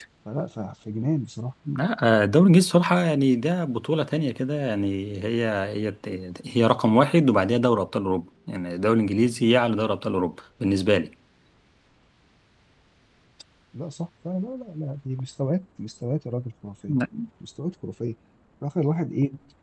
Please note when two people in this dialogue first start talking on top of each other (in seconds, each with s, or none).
none